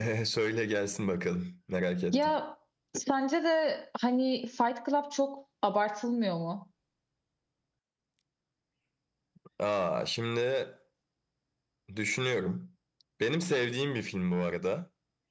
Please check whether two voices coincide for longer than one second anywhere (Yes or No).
No